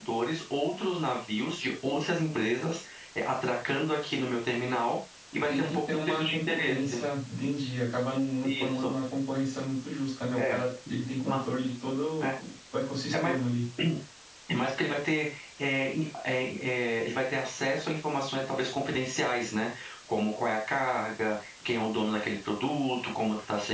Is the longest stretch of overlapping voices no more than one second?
No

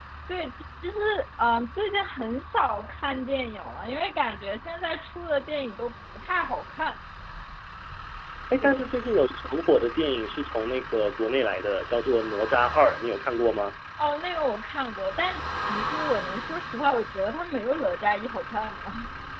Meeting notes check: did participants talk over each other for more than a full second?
No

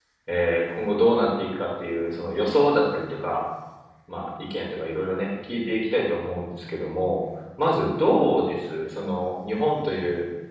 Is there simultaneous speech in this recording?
No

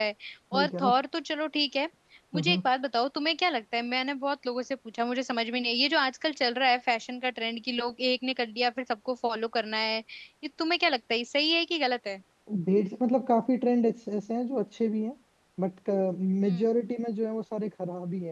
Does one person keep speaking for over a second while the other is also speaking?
No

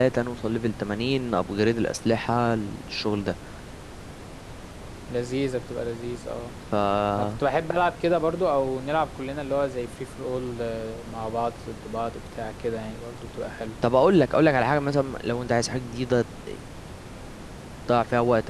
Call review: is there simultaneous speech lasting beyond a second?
No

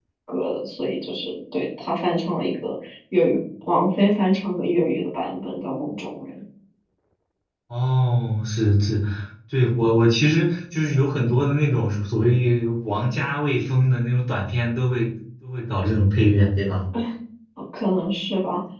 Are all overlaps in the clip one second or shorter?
Yes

